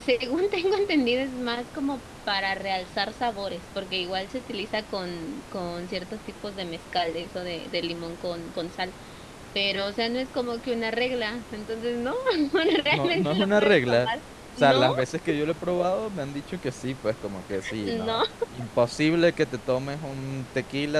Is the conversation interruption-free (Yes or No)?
No